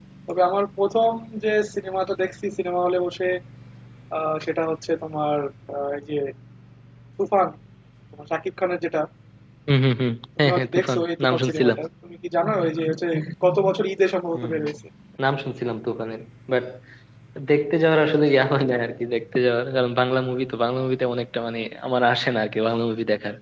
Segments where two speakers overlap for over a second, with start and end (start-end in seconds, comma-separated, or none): 10.4-11.8